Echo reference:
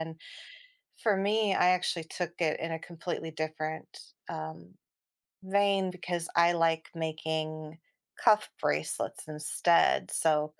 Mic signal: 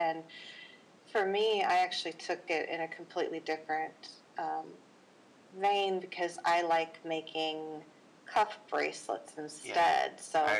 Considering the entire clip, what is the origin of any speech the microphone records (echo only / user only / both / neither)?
both